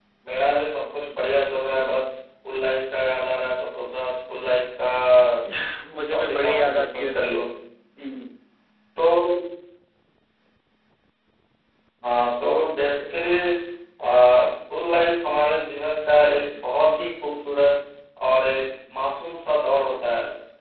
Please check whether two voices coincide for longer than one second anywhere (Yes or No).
Yes